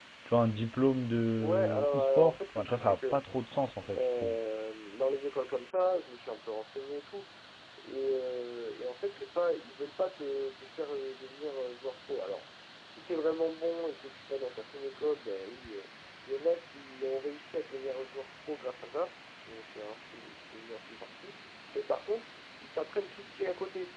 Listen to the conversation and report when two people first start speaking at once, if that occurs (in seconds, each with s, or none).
1.4 s